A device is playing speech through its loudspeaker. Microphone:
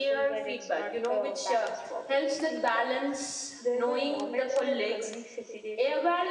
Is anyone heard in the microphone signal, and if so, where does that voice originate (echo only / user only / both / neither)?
echo only